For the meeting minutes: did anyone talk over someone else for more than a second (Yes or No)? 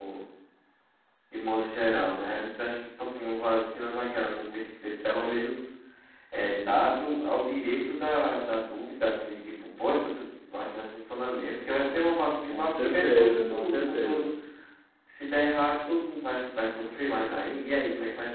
Yes